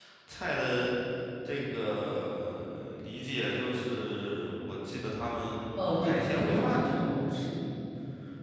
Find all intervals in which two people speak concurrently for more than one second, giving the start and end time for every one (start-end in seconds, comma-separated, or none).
5.8-7.2